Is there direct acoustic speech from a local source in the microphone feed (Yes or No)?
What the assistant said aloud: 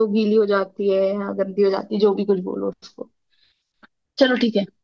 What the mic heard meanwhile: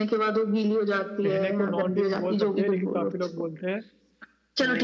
Yes